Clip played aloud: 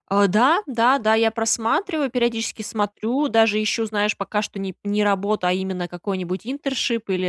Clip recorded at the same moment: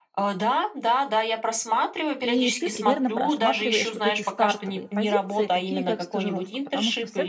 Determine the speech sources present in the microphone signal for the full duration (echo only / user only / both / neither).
both